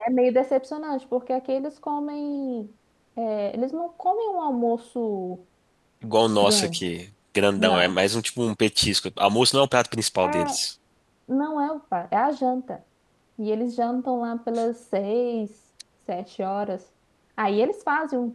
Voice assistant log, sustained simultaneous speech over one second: none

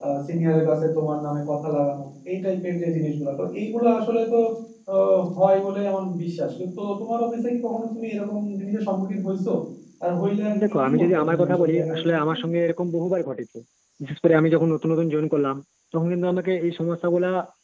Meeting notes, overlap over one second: present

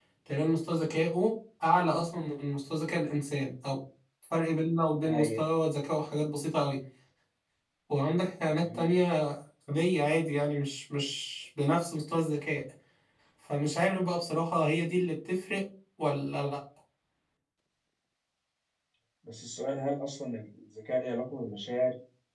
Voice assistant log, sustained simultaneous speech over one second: none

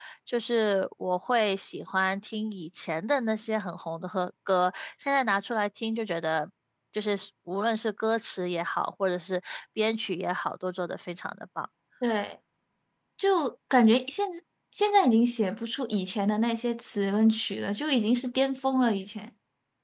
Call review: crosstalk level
none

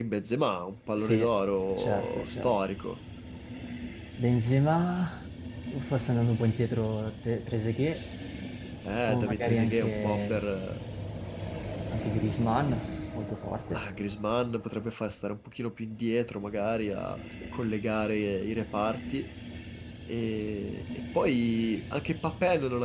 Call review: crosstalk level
present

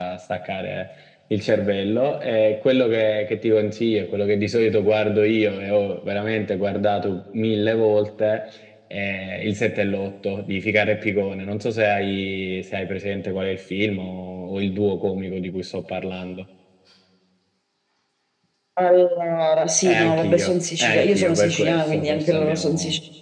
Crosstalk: present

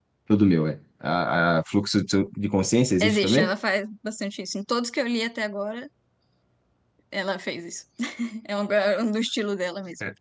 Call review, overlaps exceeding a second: none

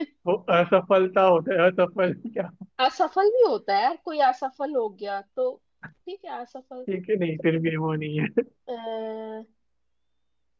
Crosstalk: none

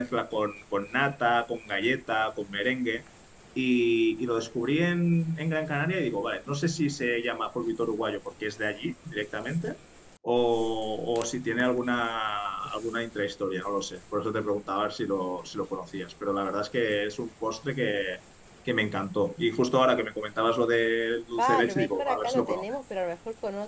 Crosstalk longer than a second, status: present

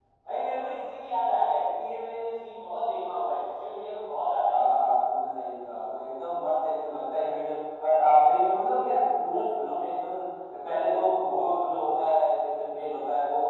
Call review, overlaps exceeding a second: none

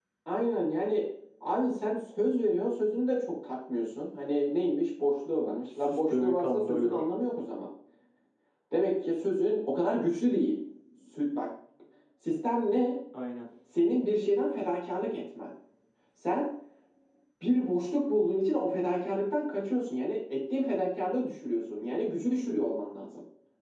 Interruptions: present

